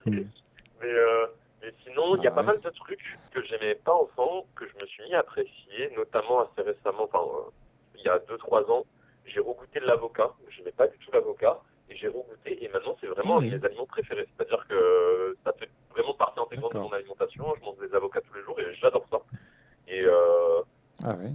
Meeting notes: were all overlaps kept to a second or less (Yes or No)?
Yes